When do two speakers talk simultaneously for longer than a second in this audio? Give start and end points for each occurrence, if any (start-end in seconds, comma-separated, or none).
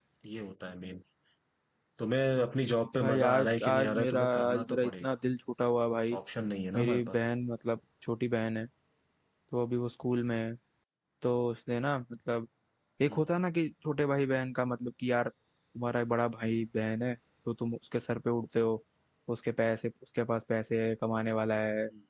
3.0-5.0